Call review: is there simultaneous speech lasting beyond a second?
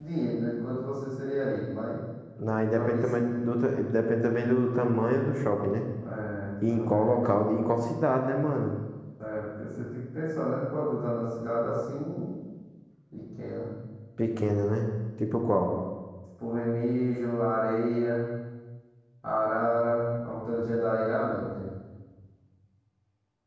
No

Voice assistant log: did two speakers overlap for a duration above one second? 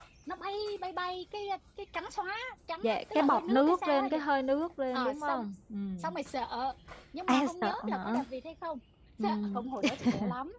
Yes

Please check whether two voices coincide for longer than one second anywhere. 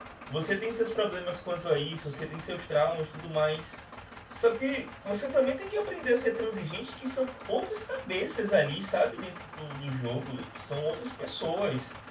No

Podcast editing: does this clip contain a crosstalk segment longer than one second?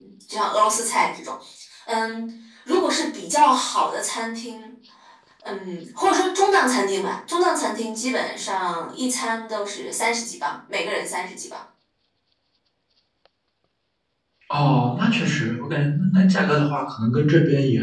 No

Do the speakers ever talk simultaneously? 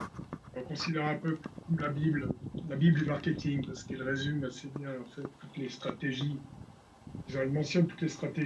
No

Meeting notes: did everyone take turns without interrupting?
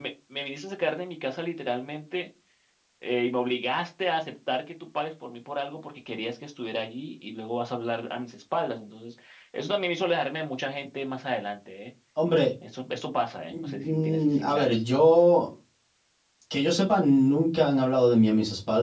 No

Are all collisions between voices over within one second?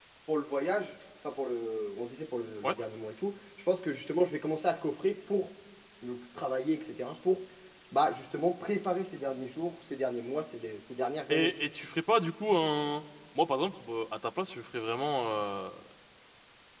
Yes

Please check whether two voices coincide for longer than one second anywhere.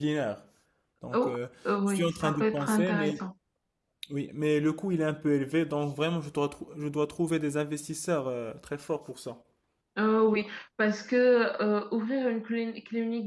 Yes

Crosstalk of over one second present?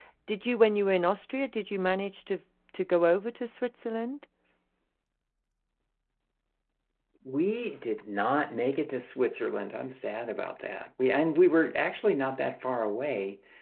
No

